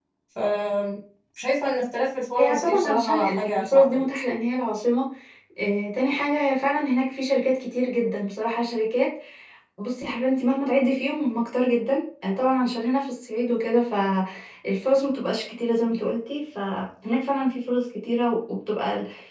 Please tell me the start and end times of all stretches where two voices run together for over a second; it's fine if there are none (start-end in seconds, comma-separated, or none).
2.4-4.0